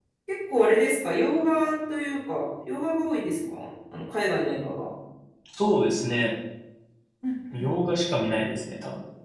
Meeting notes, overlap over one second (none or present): none